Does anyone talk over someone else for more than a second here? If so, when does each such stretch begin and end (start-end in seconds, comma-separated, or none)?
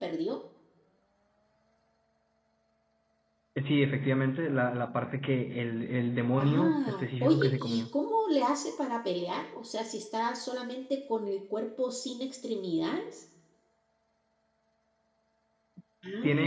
6.4-7.8